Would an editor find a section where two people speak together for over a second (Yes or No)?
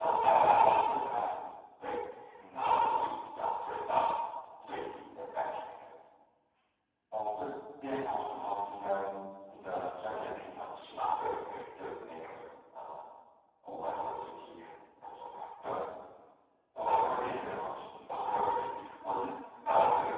Yes